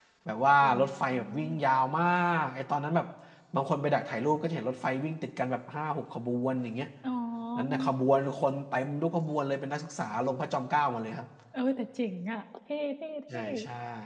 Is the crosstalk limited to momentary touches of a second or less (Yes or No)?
Yes